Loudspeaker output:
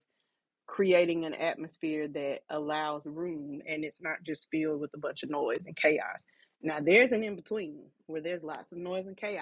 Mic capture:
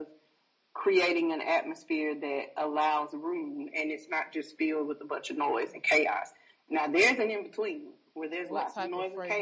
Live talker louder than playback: No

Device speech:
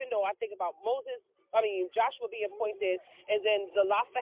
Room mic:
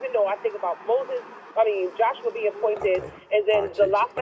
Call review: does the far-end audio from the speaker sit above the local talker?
Yes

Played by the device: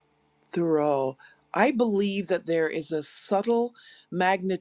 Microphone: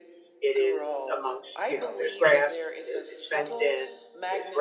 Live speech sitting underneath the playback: No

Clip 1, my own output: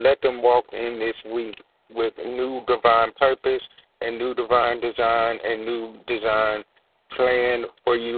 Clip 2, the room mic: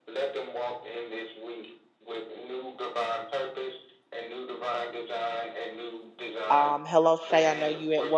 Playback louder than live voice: No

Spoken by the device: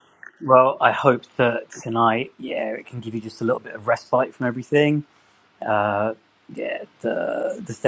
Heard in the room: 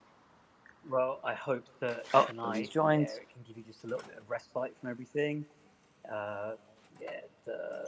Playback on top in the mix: No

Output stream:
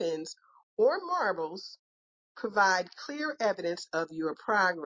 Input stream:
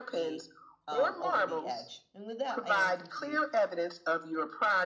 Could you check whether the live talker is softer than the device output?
Yes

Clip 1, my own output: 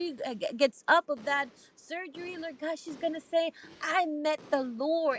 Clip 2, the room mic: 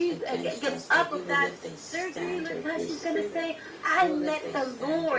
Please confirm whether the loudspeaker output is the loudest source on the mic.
Yes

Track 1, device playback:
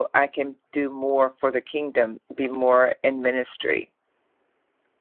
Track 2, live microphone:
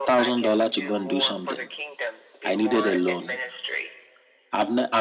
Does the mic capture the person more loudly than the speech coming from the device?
Yes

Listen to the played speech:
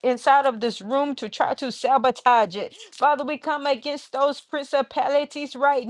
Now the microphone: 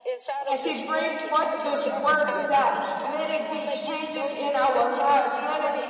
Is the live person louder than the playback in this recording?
Yes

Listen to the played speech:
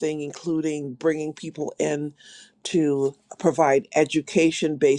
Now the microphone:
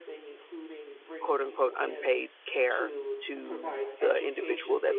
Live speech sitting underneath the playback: No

